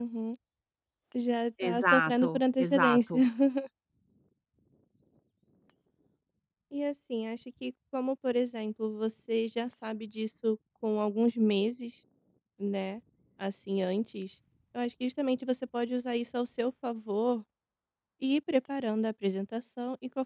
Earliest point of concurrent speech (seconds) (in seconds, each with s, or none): 1.6 s